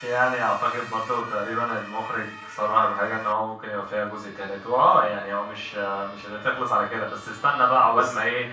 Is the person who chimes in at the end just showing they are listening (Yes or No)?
Yes